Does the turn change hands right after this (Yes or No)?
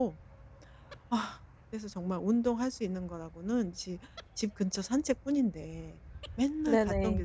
No